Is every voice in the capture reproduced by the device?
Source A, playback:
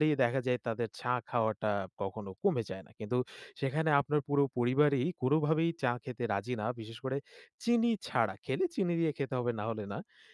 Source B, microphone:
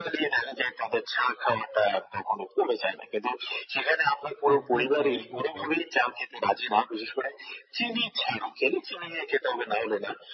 No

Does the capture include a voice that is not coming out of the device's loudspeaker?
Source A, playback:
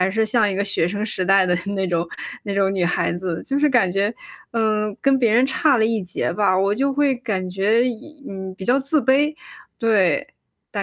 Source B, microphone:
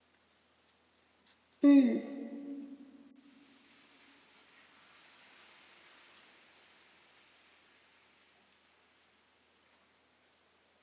Yes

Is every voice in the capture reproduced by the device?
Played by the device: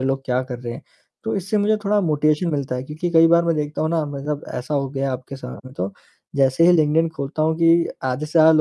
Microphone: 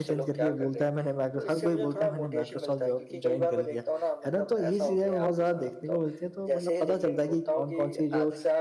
No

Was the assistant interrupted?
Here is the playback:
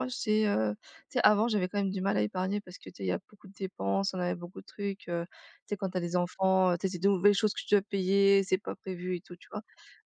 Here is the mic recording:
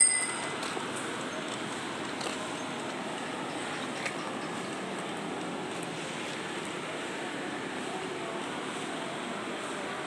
No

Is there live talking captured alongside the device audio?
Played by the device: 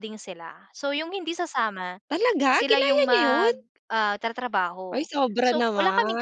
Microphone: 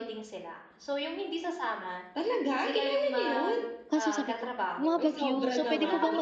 Yes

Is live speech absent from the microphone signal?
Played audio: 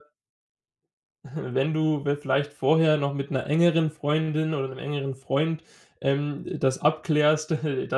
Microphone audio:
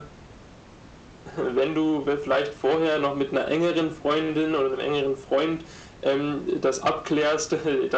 Yes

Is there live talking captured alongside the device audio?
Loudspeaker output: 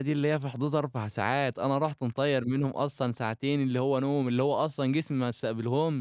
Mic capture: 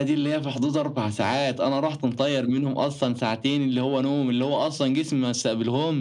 No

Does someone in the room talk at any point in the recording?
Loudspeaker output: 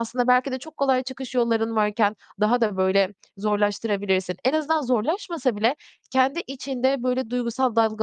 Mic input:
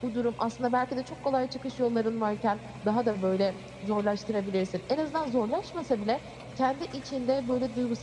No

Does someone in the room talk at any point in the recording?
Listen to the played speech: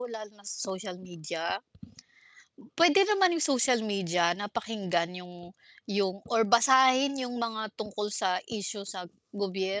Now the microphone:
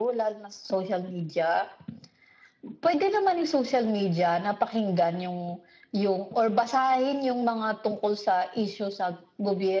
No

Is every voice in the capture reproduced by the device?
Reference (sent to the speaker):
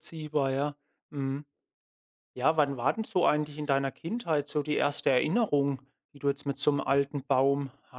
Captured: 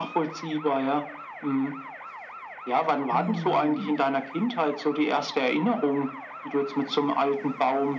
No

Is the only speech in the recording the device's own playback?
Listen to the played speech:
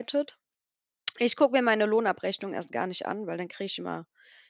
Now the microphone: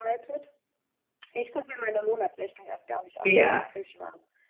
No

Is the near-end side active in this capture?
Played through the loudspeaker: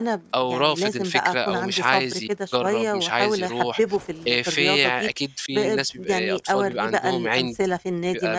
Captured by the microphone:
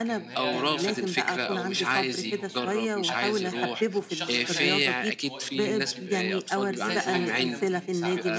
Yes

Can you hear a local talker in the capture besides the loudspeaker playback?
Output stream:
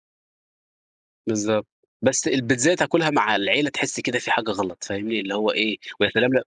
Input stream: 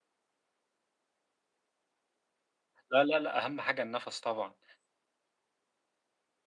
Yes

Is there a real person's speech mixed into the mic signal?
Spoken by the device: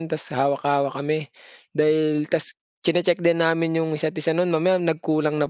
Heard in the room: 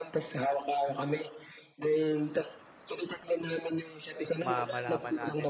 Yes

